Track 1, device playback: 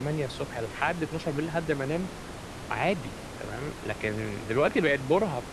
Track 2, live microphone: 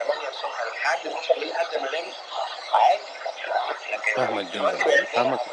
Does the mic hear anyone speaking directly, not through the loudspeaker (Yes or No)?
Yes